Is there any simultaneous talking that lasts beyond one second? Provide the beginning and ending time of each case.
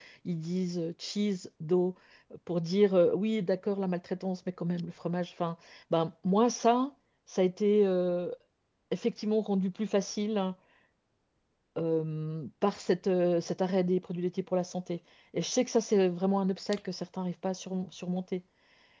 none

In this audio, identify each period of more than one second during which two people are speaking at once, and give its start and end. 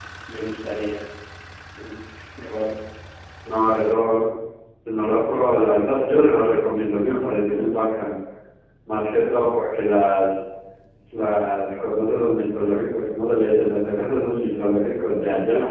none

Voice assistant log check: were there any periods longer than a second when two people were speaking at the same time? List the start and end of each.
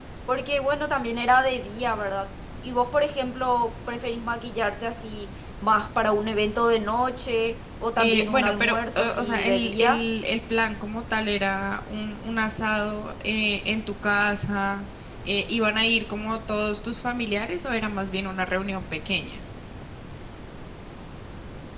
8.0-10.0

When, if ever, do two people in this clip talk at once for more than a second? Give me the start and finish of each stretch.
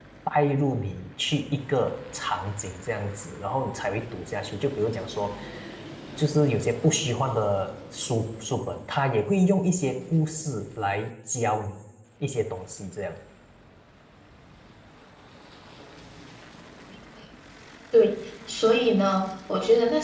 none

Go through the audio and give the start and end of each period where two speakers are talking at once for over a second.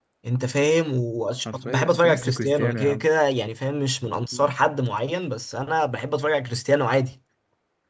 1.5-3.0

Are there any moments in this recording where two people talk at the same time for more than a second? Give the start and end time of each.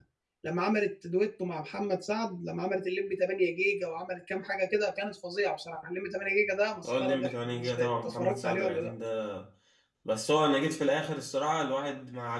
6.8-8.9

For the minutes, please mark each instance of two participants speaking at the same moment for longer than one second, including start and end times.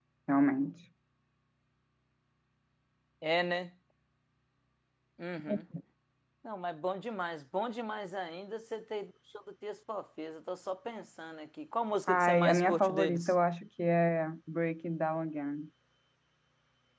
12.1-13.3

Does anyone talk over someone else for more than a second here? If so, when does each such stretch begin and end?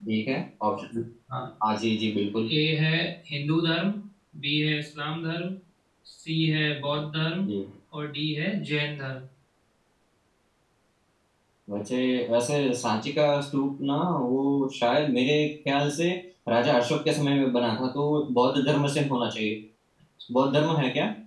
none

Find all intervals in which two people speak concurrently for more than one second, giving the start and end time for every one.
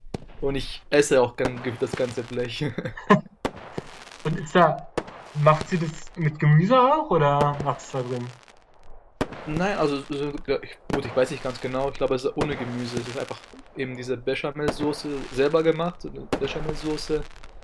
none

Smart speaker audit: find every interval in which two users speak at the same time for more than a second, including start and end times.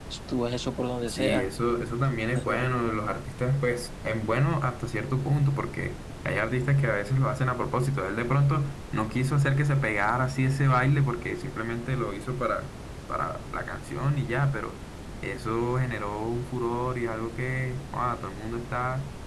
none

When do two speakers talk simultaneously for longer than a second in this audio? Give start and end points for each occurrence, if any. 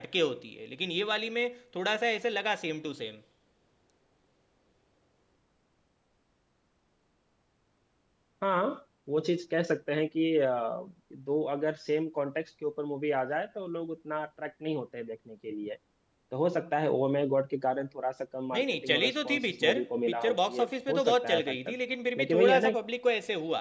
18.5-21.8

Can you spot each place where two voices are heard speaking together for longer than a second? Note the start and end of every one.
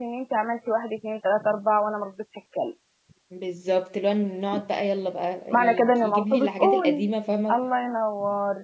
5.5-7.1

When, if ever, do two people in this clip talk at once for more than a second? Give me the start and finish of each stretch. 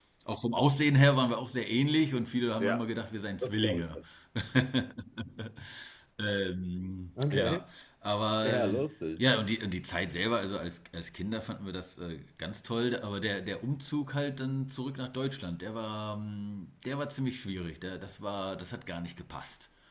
none

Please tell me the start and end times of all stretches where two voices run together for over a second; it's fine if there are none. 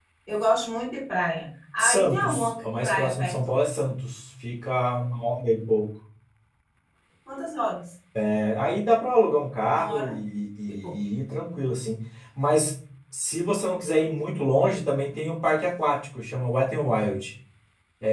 1.8-3.4

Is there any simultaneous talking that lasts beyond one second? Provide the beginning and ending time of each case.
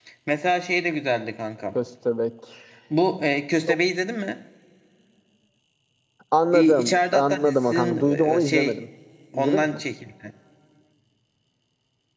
6.5-8.8

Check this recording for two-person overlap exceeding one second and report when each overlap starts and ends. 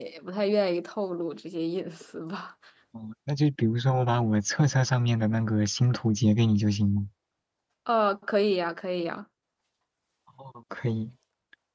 none

